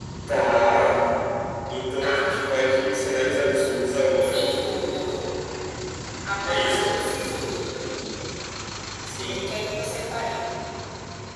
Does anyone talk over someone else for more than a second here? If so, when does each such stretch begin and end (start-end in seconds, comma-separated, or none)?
none